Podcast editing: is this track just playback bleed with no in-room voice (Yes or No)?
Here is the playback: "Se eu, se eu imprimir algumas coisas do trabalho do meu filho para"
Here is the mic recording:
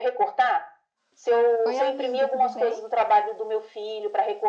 No